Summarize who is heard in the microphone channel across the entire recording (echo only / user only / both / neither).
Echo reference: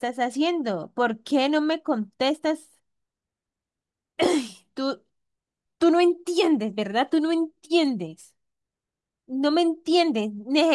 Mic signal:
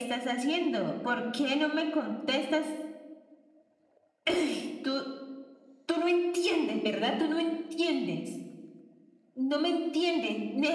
echo only